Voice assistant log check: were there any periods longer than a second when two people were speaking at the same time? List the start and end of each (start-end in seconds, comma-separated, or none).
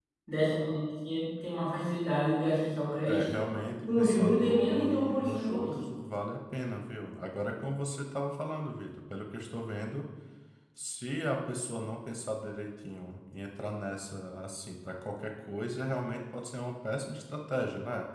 4.0-5.8